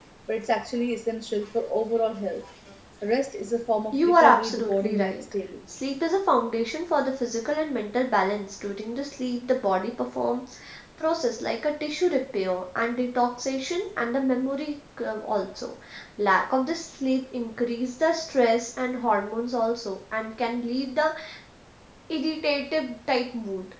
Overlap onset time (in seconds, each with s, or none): 3.9 s